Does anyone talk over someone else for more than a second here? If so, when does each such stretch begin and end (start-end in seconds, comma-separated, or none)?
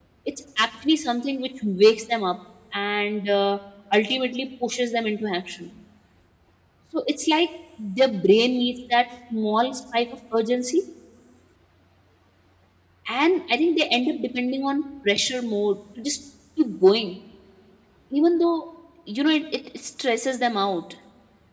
none